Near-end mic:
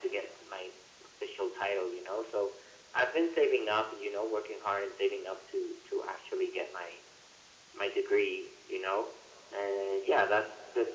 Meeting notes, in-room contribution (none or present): none